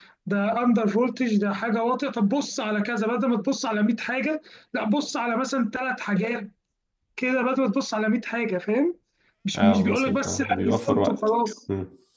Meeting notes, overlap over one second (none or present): present